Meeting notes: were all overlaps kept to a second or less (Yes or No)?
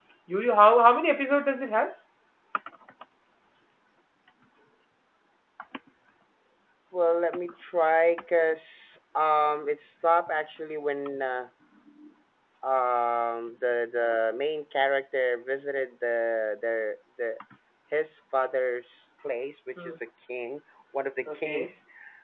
Yes